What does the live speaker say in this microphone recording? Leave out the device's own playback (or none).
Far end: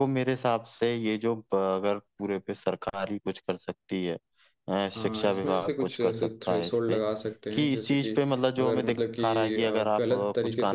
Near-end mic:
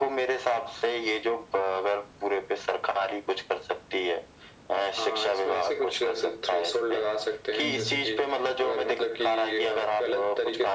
हम्म